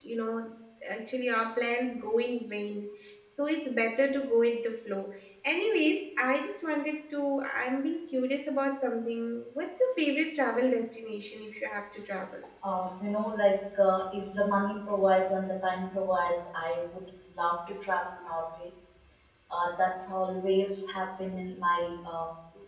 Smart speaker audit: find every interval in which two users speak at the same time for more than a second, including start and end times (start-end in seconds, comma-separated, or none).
none